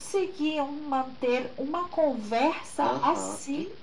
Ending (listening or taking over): taking over